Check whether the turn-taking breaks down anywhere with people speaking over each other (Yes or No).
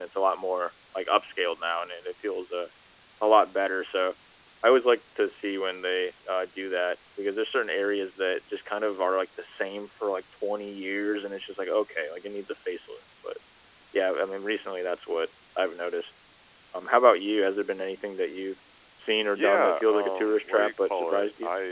Yes